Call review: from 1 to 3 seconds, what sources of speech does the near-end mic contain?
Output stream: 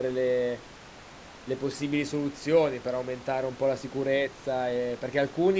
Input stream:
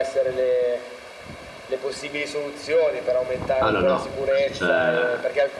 echo only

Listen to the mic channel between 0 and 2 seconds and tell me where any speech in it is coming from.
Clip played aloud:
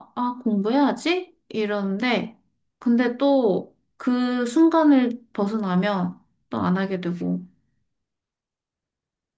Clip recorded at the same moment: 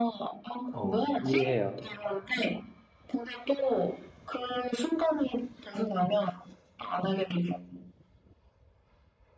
both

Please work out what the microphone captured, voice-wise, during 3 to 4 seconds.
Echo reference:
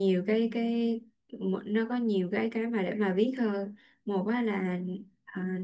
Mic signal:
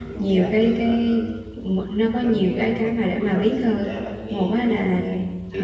both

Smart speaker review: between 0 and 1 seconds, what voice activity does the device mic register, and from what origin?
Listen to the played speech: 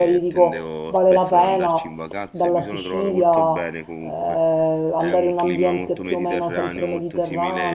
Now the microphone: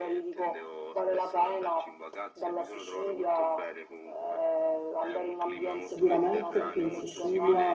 echo only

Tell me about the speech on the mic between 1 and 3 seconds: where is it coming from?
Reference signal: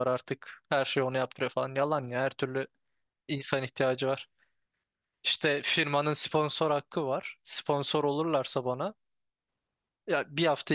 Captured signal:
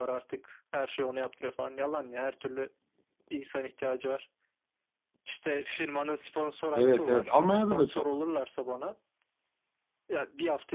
echo only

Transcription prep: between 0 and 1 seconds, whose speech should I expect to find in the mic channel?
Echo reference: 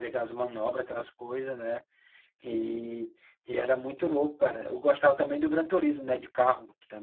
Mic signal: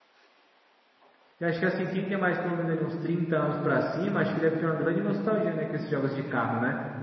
neither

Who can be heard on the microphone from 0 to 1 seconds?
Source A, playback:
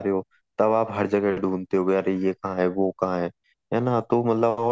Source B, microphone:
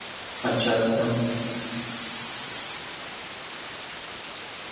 user only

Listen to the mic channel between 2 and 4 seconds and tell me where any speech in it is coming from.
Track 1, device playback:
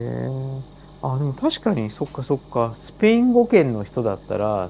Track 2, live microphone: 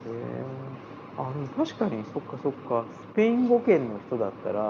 echo only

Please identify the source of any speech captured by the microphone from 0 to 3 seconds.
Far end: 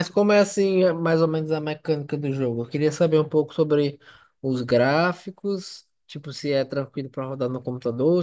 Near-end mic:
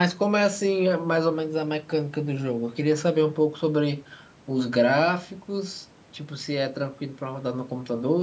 echo only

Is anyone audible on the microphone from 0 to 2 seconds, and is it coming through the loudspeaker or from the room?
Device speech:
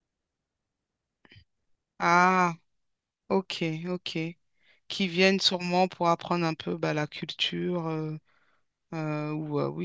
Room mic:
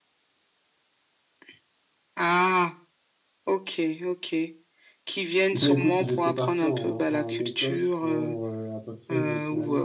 neither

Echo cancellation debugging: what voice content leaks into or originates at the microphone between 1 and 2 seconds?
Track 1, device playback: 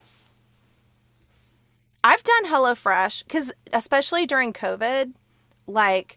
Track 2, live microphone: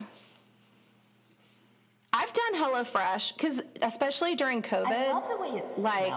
neither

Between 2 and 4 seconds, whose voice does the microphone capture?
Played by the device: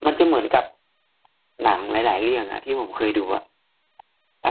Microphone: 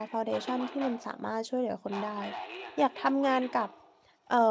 both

